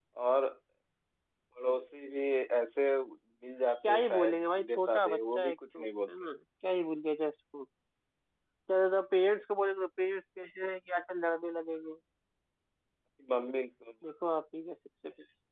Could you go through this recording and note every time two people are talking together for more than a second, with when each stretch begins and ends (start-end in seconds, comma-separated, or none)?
3.9-6.1